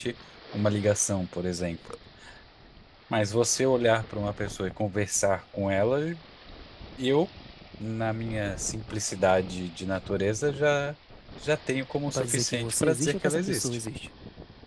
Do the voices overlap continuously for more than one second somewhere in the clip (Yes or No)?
Yes